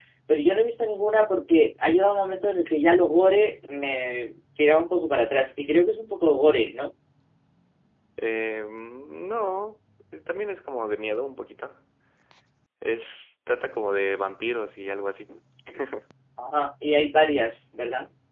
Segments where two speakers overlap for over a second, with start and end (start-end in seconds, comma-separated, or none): none